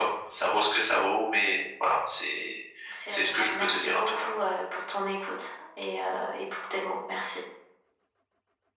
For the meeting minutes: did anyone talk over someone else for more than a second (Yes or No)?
Yes